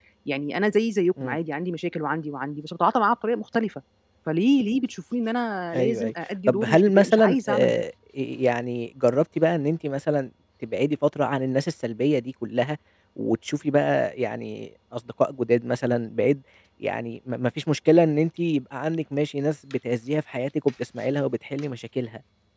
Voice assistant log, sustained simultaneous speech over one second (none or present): present